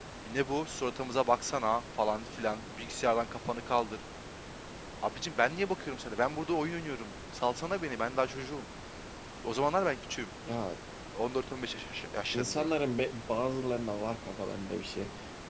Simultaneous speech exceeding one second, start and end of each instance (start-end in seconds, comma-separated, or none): none